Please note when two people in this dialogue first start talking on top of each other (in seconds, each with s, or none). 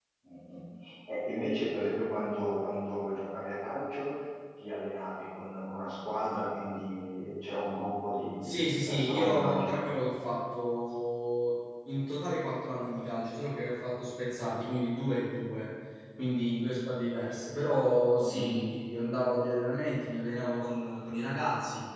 8.4 s